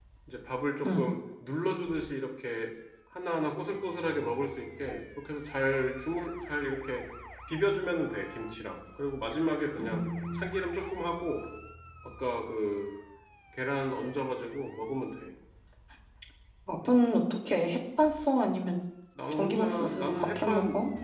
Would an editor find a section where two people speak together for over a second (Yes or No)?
Yes